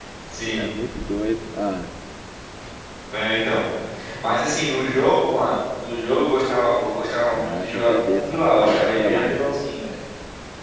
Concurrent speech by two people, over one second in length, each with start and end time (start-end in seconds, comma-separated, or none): 7.3-9.4